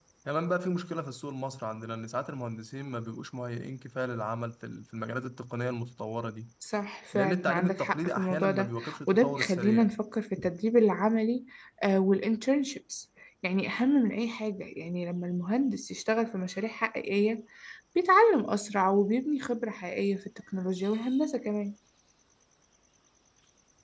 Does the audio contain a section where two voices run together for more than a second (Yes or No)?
Yes